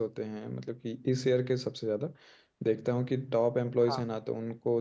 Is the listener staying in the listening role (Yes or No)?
Yes